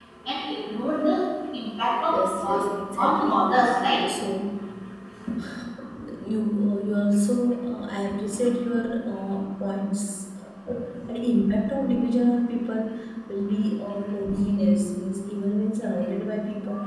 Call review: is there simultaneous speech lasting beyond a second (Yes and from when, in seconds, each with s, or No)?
Yes, from 2.1 s